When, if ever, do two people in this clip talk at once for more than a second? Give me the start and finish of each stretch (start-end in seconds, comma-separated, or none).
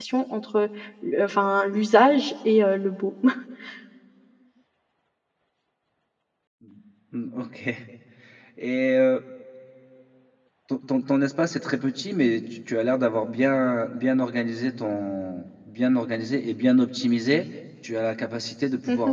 none